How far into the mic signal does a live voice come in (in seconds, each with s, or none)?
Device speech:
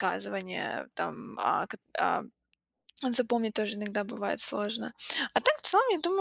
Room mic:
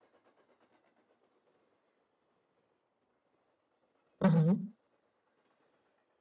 4.2 s